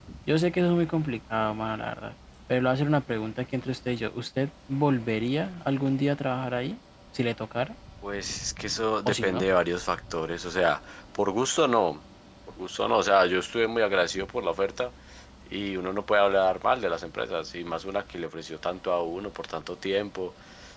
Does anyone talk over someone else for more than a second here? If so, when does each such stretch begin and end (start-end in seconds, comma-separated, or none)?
none